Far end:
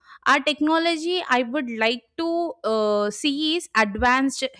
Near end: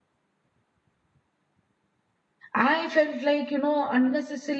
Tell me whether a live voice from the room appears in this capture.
Yes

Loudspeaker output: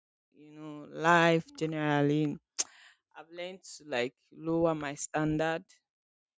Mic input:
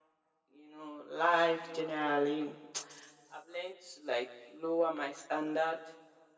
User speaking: No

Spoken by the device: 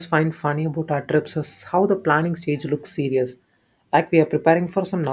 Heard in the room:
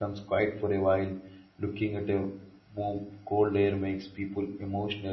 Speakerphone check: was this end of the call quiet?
No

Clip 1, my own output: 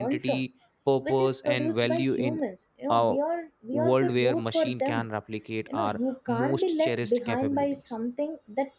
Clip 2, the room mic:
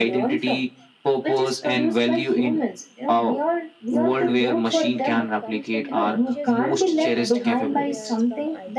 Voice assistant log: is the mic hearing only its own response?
No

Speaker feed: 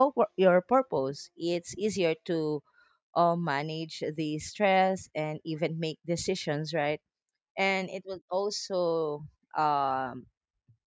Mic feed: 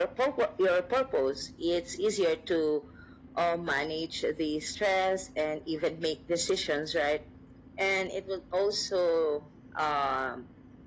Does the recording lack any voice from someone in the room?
Yes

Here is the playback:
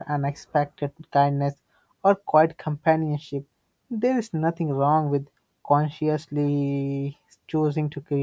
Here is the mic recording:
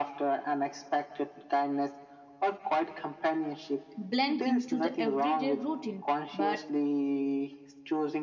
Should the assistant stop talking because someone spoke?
Yes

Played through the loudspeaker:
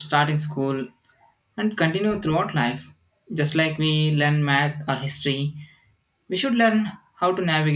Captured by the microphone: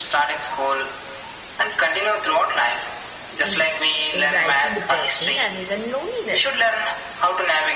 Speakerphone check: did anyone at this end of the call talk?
Yes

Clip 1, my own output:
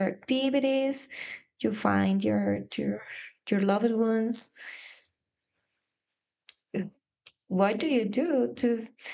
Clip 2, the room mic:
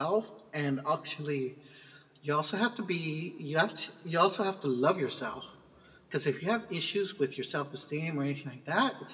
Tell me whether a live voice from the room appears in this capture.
Yes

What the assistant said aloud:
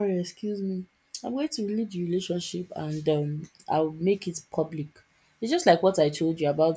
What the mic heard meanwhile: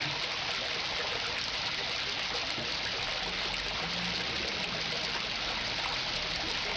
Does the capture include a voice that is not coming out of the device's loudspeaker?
No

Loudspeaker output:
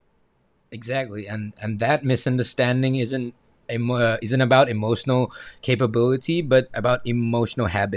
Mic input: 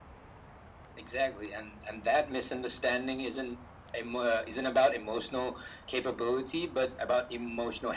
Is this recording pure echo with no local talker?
Yes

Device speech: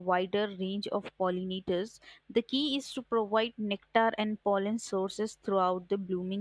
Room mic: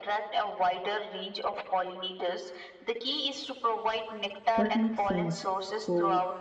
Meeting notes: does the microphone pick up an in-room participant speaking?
Yes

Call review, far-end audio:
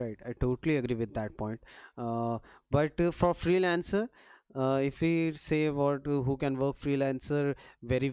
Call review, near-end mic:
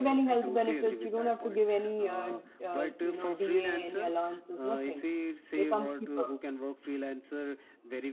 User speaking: Yes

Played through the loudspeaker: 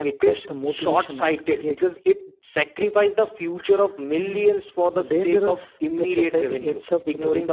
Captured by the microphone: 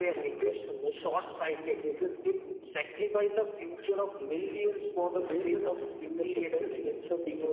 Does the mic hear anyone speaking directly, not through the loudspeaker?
No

